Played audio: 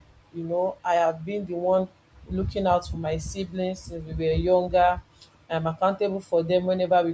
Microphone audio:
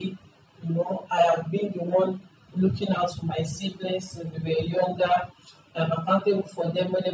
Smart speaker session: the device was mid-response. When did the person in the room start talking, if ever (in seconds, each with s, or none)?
none